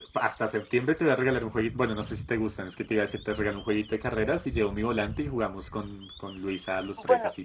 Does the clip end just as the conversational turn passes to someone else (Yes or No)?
Yes